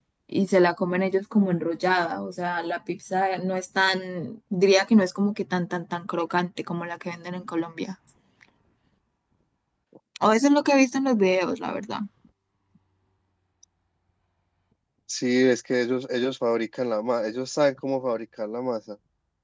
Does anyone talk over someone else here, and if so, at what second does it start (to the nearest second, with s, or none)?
none